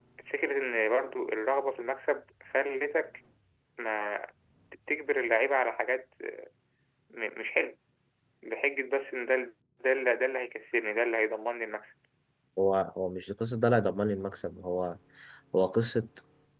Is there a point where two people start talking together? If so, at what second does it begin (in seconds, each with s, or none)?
none